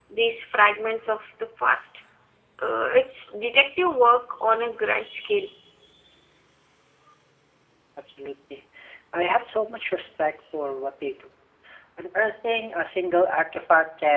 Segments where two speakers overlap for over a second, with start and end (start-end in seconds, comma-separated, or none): none